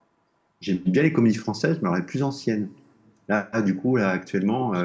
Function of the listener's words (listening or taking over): listening